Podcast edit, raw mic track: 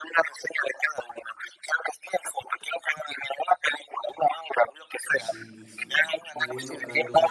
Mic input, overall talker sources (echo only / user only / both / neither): both